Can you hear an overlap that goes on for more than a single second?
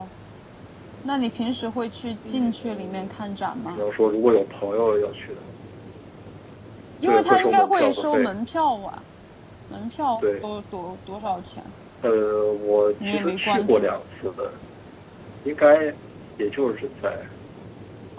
Yes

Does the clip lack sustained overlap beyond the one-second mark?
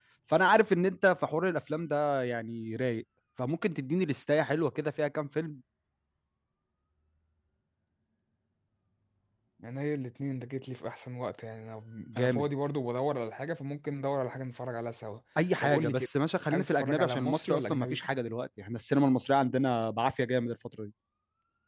No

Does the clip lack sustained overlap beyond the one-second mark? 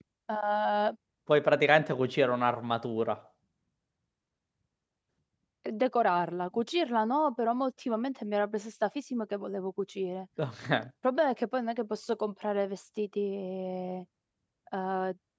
Yes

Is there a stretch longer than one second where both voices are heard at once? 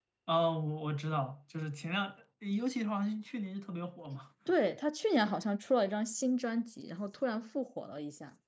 No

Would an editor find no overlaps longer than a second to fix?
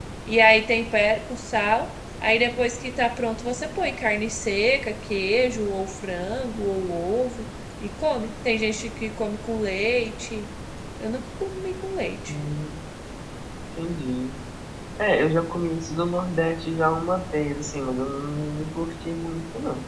Yes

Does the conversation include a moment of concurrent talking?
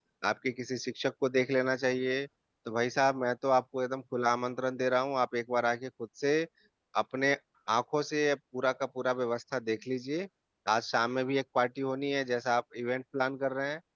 No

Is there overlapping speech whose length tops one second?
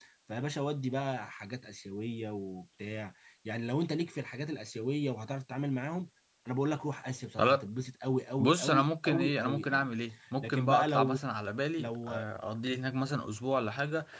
Yes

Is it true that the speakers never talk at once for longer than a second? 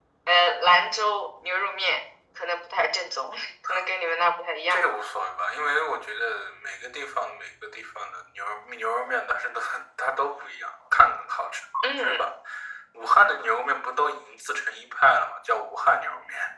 Yes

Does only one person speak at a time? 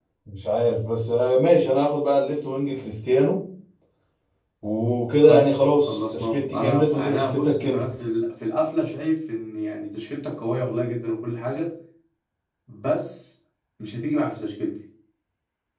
No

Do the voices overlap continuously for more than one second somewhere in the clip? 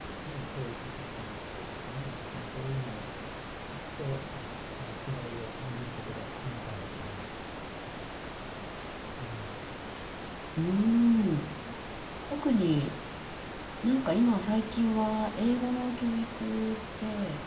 No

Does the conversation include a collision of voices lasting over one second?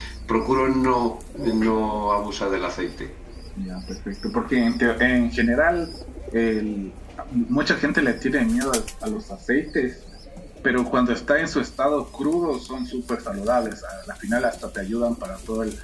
No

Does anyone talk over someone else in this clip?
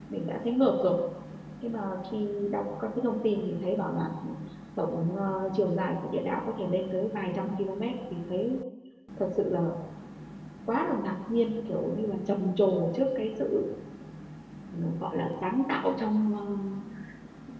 No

